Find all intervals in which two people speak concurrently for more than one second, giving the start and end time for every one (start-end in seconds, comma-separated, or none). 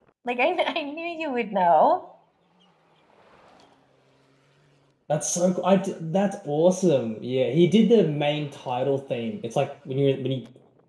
none